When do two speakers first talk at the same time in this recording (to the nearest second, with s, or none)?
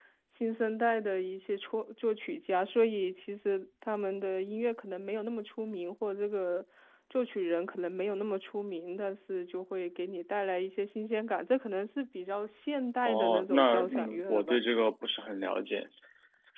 13 s